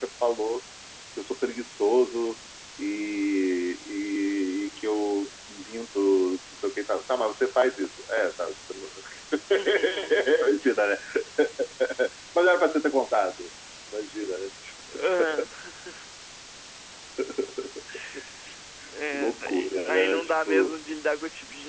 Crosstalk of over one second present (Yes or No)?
Yes